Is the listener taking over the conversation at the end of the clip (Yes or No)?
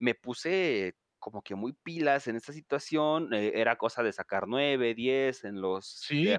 Yes